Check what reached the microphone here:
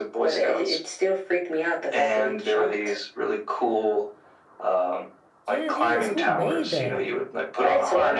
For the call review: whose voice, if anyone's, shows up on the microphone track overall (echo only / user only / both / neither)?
both